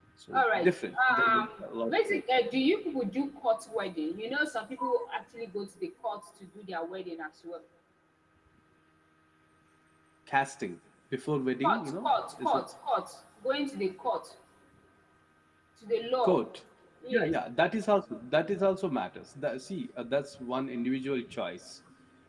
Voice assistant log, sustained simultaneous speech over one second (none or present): present